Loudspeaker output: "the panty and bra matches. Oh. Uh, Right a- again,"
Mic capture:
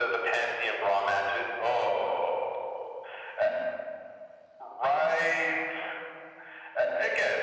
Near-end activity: none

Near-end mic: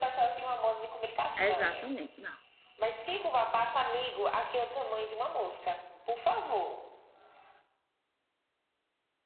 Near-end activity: present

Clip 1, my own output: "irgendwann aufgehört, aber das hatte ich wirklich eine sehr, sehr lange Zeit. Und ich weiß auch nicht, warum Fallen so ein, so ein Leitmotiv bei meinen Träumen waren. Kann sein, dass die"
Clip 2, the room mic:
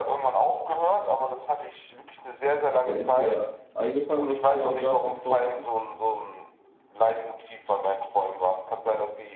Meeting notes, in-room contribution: present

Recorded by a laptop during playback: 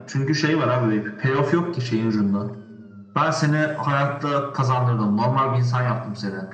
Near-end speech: none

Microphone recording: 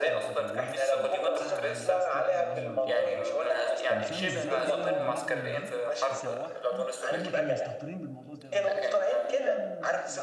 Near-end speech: present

